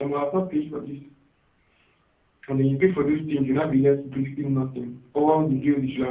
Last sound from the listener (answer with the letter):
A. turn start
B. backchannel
B